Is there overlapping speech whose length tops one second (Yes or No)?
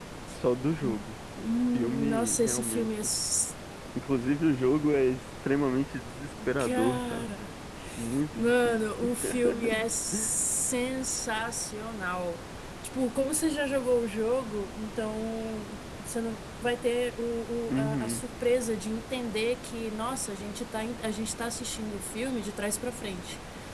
Yes